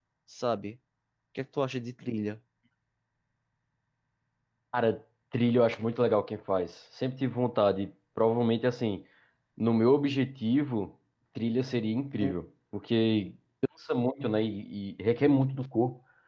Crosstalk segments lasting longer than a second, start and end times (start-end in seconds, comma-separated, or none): none